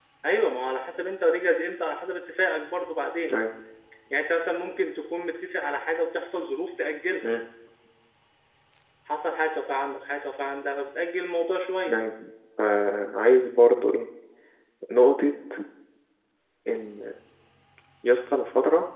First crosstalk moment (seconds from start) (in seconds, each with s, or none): none